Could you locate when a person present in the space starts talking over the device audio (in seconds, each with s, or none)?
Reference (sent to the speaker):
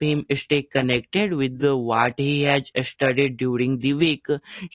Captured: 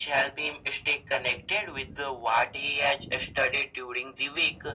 none